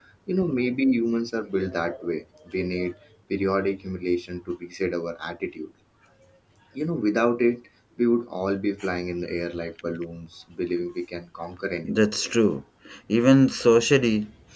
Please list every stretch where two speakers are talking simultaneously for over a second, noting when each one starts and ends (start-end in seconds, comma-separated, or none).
none